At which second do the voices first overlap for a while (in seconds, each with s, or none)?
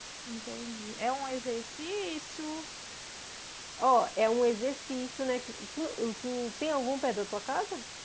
none